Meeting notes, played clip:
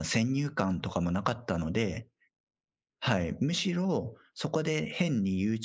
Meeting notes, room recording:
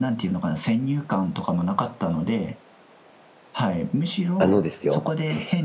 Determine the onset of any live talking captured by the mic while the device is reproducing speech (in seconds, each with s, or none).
4.4 s